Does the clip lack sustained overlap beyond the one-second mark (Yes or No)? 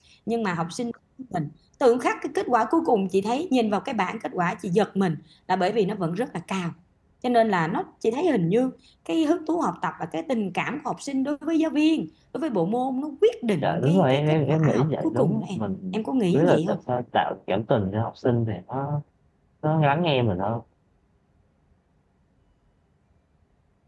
No